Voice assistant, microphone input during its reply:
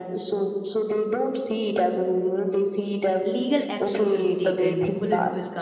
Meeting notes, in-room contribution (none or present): present